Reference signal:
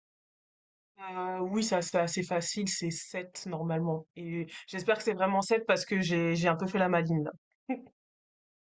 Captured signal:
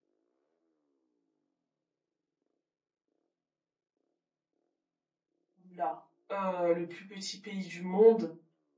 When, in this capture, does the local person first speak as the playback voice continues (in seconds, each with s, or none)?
5.7 s